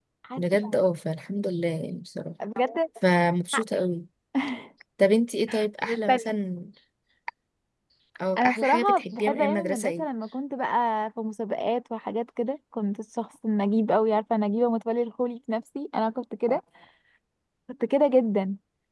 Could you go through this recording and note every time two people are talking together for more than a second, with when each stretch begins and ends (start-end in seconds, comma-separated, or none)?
8.4-10.0